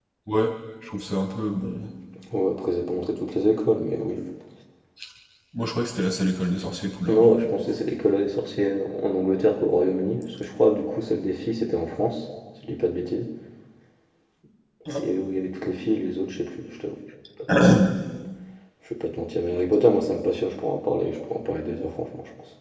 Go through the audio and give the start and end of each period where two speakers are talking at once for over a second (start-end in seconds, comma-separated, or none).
none